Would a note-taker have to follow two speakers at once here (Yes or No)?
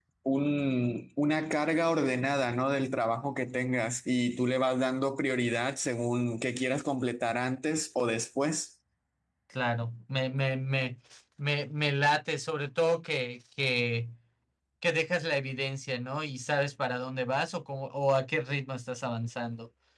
No